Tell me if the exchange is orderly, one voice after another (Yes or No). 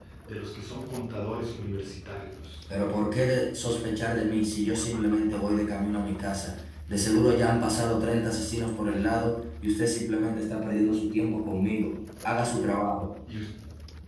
Yes